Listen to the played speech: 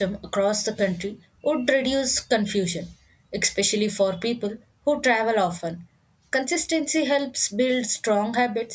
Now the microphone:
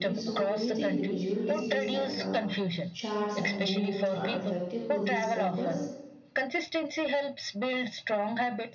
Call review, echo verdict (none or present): present